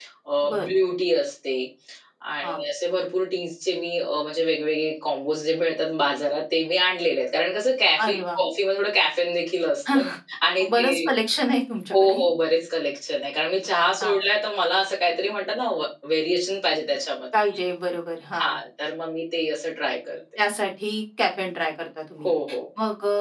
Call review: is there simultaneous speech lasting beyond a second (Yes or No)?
No